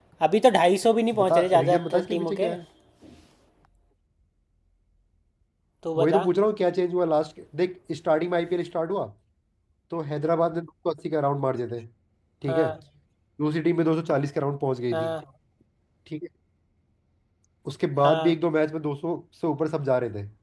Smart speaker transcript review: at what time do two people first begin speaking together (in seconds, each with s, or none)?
1.2 s